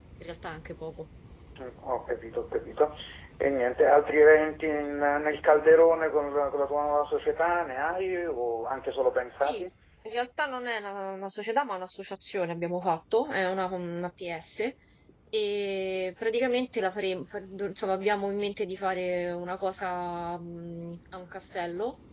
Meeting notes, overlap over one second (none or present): none